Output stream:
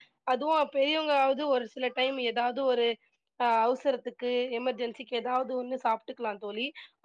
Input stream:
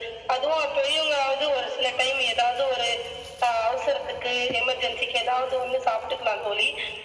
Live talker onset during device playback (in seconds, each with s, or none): none